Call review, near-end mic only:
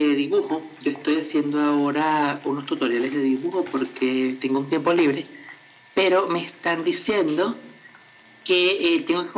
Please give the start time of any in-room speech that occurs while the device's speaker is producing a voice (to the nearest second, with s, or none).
none